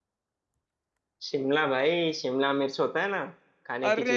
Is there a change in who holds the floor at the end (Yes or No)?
Yes